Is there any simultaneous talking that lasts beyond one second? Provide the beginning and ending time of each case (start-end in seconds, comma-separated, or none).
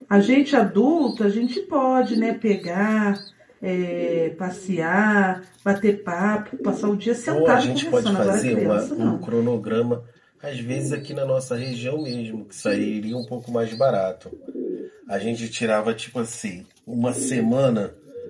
7.3-9.2